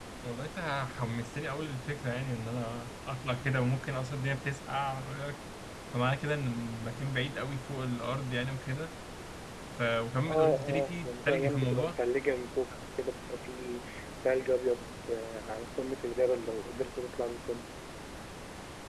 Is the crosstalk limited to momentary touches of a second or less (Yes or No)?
No